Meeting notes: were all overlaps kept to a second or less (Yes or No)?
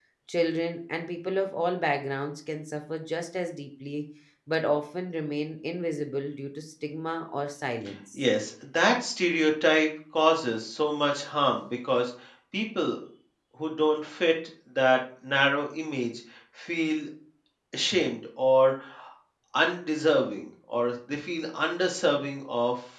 Yes